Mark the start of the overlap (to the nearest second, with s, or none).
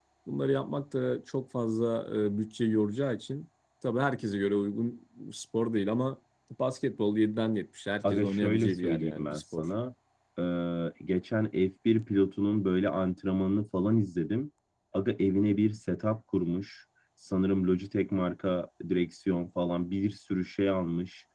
8 s